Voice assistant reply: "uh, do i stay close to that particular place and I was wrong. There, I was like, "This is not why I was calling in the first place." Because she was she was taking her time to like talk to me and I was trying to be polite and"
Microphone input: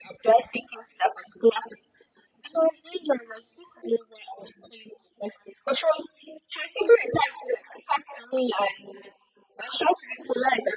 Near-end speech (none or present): none